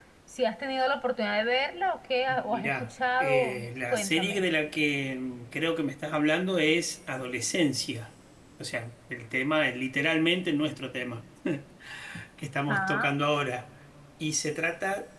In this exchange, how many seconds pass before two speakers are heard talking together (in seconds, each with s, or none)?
2.3 s